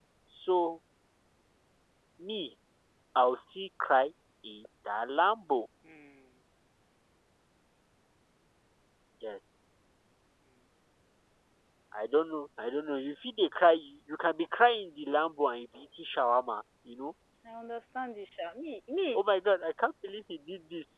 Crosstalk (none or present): none